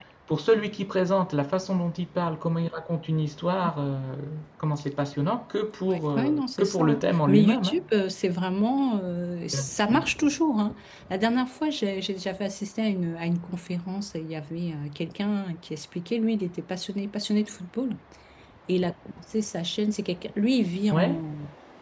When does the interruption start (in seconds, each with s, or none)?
5.9 s